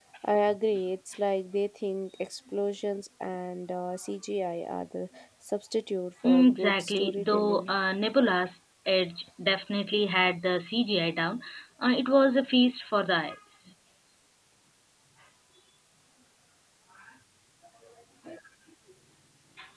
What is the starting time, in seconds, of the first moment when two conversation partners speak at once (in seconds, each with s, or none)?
6.2 s